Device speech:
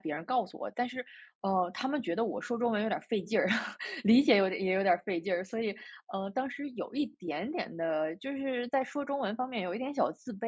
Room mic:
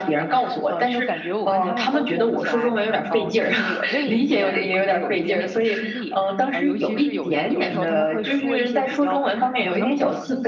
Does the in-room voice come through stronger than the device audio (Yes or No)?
No